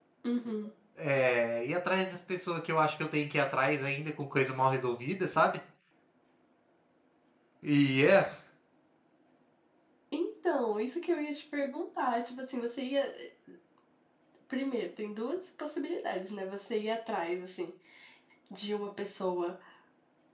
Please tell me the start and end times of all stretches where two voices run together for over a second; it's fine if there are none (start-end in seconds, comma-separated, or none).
none